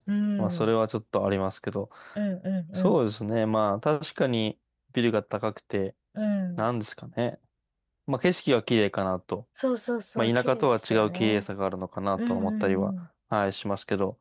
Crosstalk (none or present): present